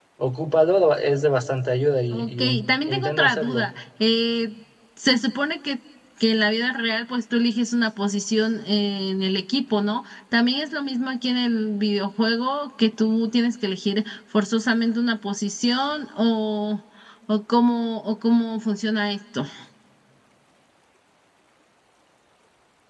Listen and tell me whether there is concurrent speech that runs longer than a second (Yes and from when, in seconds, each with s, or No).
Yes, from 2.1 s